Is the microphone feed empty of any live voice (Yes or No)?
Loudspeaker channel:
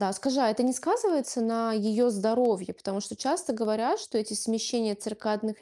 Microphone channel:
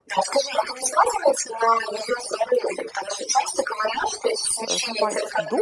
No